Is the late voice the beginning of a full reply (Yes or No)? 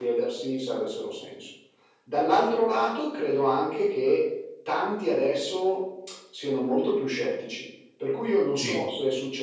No